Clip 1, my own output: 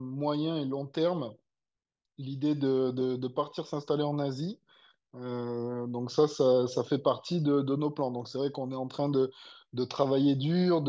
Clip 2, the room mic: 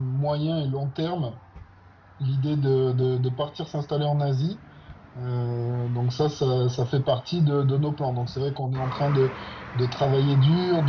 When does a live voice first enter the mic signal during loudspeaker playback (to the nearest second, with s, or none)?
none